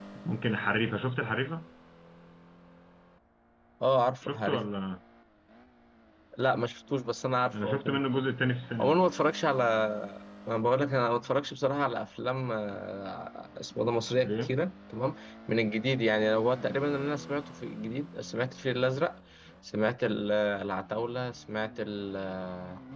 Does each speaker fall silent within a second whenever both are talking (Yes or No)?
Yes